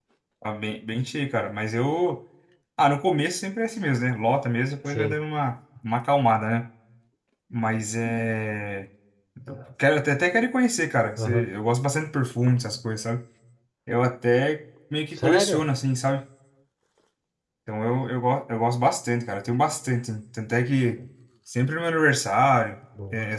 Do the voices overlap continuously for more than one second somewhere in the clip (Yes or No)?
No